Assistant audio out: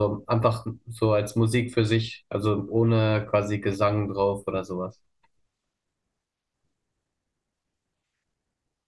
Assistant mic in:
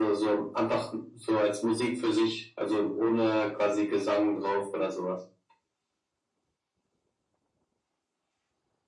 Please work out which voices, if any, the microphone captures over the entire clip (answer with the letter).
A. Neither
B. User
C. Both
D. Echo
D